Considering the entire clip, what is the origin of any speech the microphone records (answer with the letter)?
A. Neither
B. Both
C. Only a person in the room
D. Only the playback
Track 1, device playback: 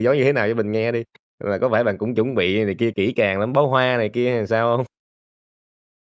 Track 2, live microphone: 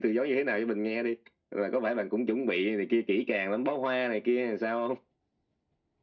D